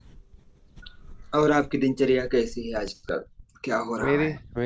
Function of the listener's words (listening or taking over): taking over